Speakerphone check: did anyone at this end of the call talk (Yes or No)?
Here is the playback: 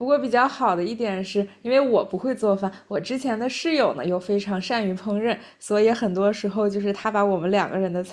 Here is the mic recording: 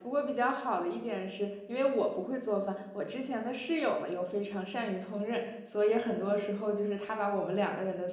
No